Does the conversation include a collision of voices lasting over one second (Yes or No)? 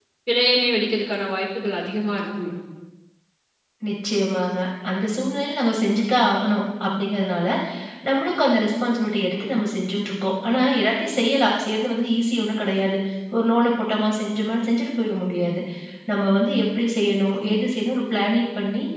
No